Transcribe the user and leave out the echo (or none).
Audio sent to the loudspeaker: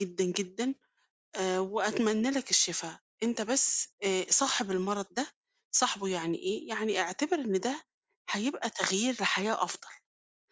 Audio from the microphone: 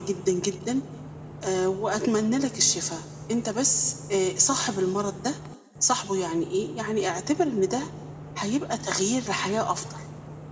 none